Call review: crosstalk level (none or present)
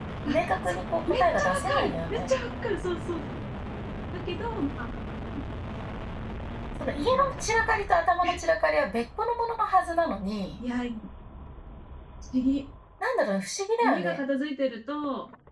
present